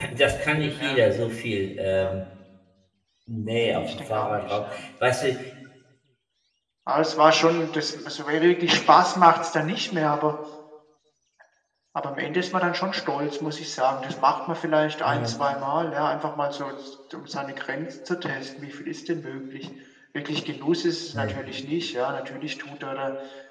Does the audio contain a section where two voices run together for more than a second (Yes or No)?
Yes